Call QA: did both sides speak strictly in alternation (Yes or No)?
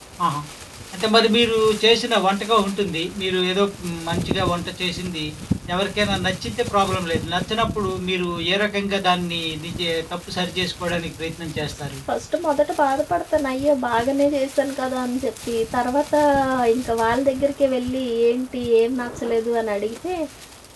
Yes